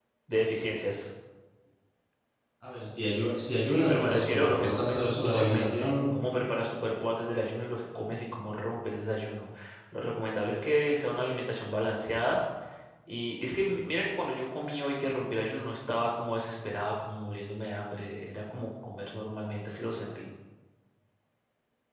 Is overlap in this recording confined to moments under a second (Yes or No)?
No